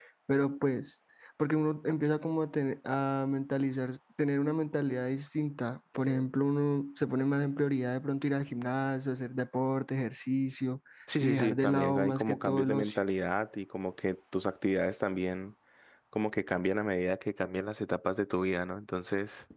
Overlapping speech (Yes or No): Yes